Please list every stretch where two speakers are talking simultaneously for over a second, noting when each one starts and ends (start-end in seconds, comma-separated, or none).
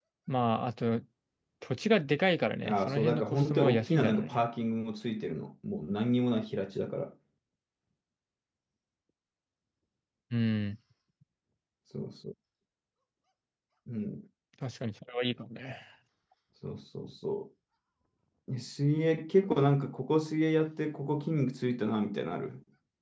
2.6-4.4